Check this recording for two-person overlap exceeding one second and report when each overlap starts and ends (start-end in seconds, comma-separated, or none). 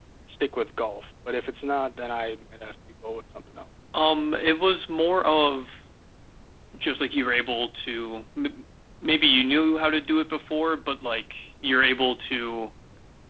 none